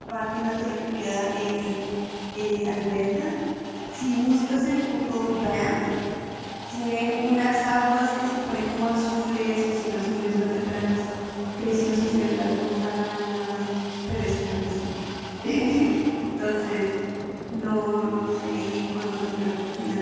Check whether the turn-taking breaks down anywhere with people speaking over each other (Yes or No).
No